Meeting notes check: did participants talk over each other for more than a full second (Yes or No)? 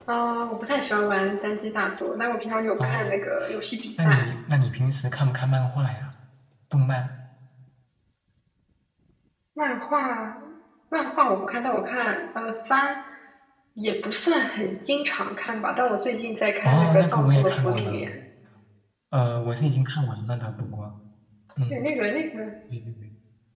Yes